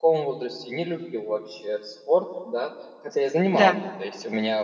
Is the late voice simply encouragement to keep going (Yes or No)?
Yes